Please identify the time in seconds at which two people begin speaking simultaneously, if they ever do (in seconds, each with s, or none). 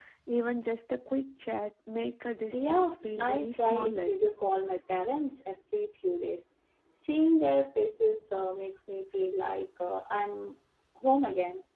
2.5 s